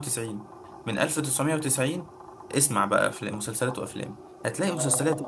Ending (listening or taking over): listening